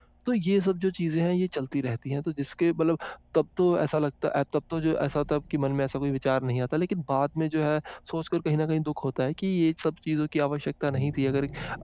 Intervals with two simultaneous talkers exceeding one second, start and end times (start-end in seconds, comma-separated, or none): none